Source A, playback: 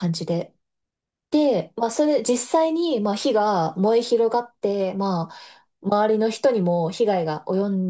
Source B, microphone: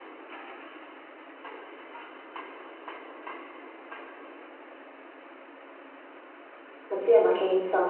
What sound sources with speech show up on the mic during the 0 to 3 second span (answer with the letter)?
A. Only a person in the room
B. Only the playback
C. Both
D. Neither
D